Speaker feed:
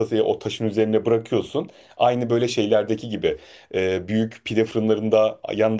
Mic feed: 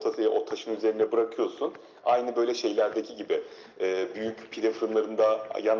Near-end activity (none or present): none